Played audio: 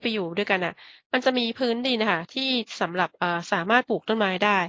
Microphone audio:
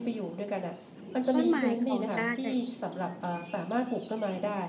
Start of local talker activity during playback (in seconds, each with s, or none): 1.3 s